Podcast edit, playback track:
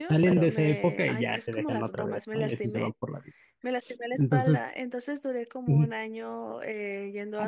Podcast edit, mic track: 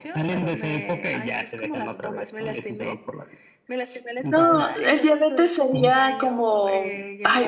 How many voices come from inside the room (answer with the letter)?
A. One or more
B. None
A